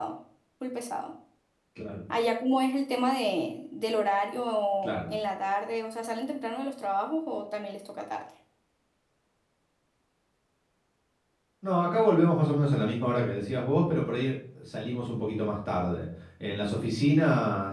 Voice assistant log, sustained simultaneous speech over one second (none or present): none